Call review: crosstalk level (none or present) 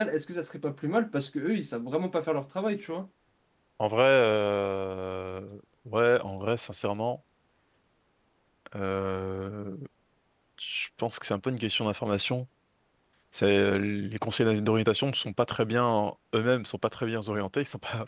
none